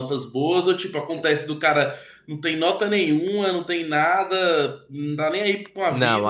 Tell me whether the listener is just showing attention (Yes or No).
No